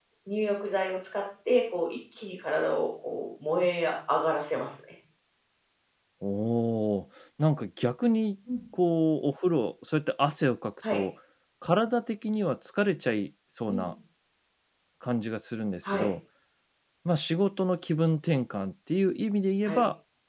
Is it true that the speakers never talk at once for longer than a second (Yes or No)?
Yes